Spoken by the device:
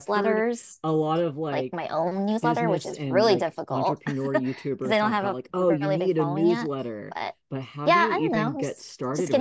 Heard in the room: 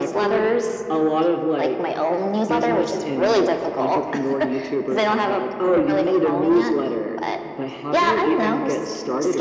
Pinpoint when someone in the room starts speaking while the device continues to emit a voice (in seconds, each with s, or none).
none